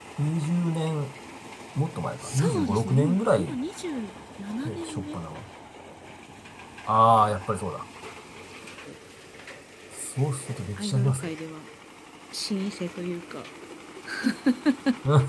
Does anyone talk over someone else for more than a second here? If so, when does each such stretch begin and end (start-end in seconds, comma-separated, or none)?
2.2-3.5